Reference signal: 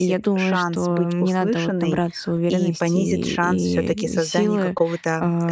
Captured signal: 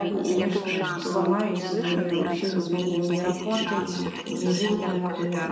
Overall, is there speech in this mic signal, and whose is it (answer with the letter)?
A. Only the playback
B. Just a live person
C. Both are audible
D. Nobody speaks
C